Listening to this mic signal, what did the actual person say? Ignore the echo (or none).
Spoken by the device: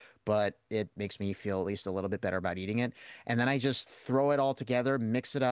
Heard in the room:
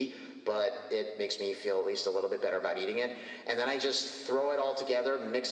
none